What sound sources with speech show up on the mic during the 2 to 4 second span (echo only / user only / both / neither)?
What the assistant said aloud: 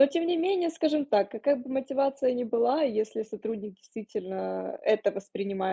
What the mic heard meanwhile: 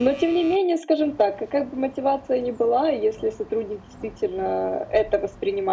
echo only